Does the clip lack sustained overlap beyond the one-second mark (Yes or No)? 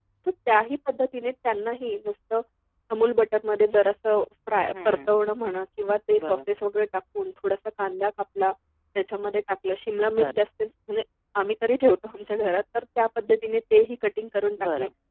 Yes